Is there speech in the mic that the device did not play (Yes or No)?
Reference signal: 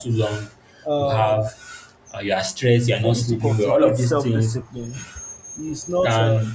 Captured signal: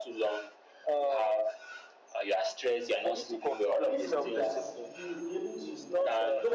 Yes